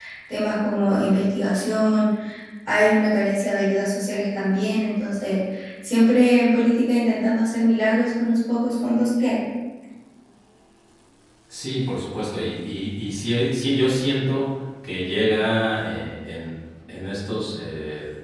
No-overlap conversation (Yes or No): Yes